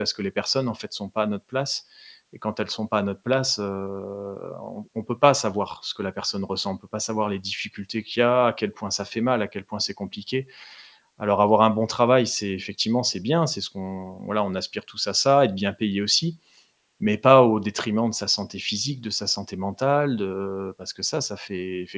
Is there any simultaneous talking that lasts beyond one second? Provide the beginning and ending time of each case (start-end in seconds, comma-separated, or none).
none